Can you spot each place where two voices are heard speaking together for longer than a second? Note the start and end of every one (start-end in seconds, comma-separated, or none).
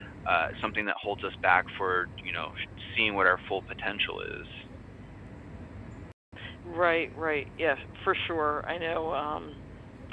none